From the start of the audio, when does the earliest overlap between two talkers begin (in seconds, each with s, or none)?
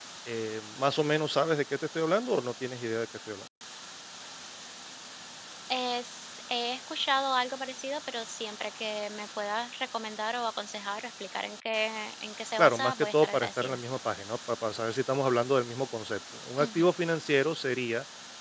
12.6 s